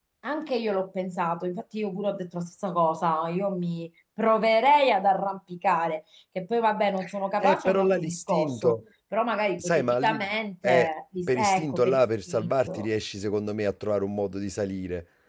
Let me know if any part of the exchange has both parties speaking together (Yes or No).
Yes